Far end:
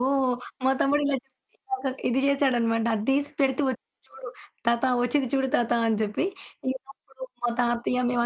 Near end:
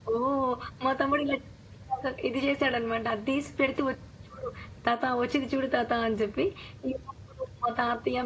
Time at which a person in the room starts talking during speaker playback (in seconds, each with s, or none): none